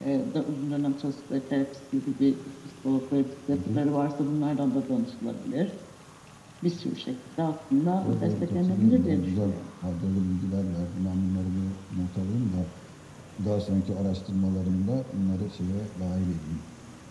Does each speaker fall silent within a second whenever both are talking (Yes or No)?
No